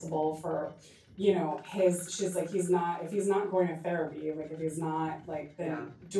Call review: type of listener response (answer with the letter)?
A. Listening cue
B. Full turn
A